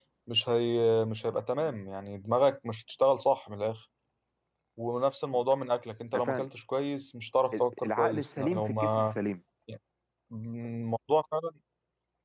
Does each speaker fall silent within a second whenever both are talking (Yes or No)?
No